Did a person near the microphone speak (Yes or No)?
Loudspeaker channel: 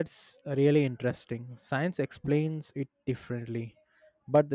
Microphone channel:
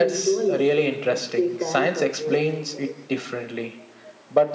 Yes